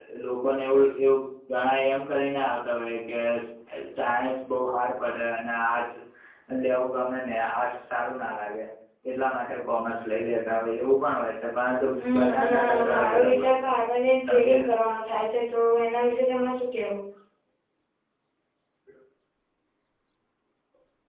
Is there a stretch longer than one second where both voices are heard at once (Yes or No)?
Yes